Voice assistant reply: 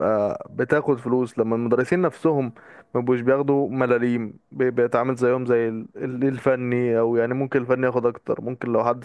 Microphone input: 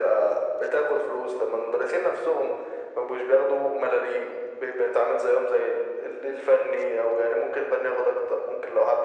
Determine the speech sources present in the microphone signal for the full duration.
echo only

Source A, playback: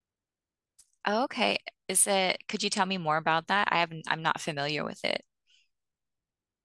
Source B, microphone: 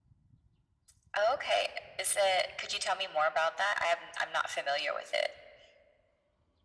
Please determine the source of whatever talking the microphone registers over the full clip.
echo only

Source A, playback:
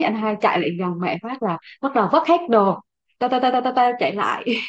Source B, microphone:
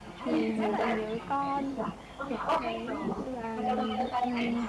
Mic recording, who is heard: both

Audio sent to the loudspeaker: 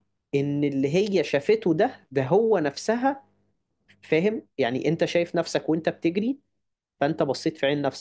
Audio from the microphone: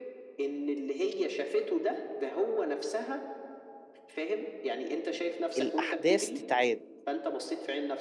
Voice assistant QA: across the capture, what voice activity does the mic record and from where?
both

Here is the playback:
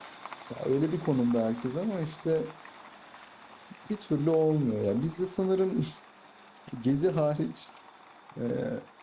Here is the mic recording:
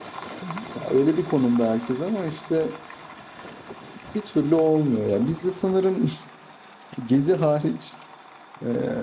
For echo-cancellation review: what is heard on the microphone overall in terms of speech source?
both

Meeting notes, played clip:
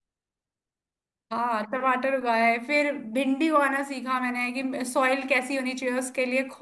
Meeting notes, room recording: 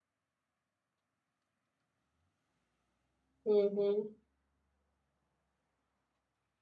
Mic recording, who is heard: user only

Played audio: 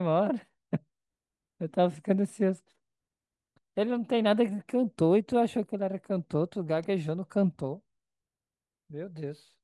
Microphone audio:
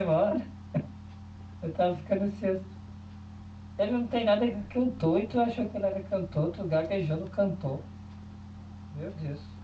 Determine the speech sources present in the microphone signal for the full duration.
echo only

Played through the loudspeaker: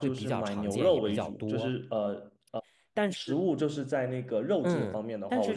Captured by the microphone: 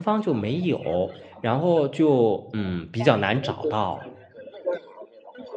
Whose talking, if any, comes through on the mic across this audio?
both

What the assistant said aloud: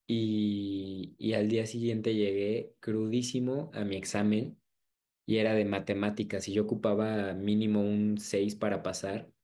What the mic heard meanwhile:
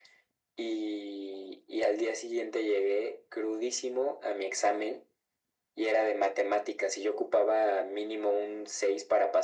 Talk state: echo only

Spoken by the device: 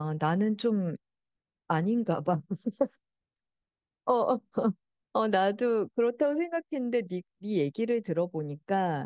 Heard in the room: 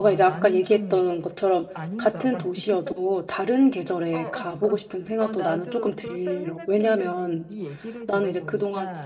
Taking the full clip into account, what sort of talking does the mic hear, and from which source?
both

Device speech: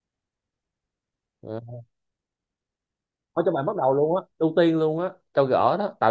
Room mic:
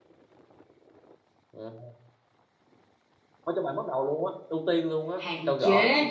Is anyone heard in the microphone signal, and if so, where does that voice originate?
both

